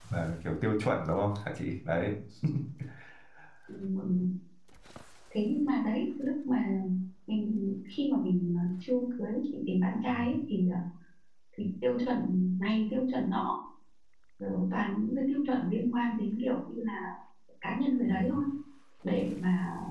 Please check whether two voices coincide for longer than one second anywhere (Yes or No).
No